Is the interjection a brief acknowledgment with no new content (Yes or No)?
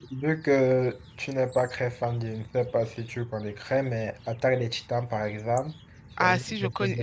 No